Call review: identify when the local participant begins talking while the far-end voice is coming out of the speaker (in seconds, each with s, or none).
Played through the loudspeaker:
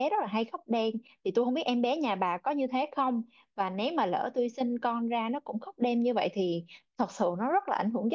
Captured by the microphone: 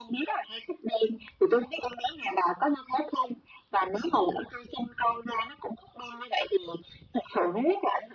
none